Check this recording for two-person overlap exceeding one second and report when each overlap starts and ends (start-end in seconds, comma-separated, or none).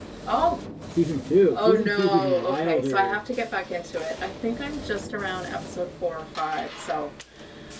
1.5-3.2